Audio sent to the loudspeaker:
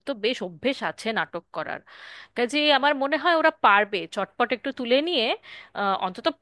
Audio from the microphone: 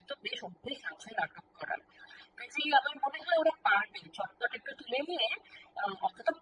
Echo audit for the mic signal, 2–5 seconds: echo only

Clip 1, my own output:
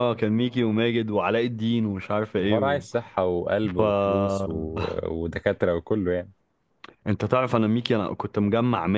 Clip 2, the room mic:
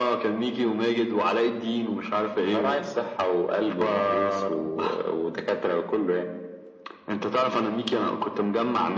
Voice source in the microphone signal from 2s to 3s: echo only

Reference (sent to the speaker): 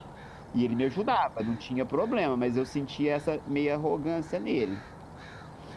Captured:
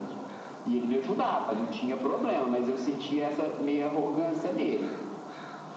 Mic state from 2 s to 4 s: echo only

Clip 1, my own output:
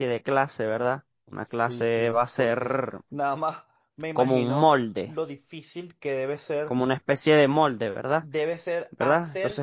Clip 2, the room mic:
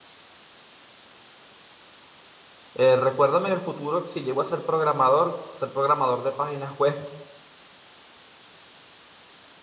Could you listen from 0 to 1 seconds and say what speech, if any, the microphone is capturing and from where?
neither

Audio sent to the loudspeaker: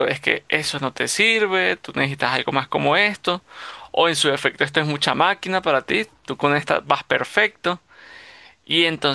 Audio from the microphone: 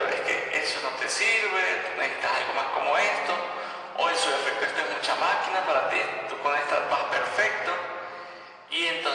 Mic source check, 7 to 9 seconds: echo only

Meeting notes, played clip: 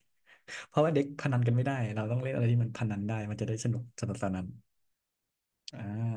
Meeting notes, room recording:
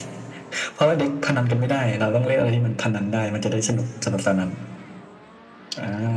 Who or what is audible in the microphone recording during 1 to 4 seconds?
echo only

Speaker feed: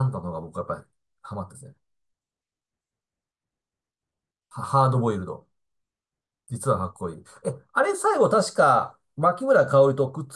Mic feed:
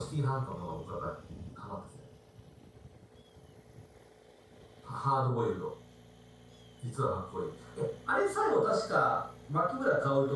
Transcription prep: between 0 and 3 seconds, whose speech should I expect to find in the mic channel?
echo only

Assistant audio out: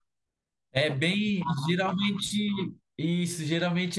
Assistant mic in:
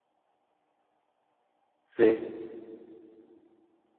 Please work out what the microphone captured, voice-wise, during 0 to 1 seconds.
neither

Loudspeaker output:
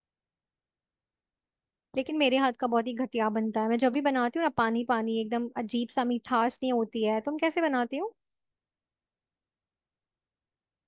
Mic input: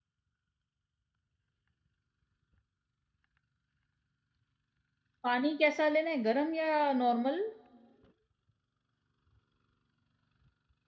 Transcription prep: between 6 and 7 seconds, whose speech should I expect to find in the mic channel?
user only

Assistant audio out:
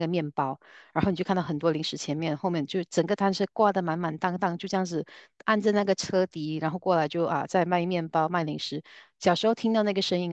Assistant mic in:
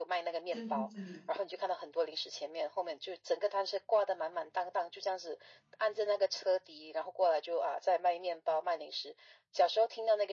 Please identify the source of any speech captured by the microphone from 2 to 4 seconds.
echo only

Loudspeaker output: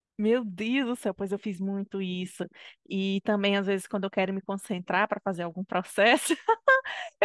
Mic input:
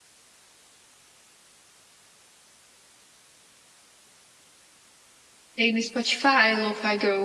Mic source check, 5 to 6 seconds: user only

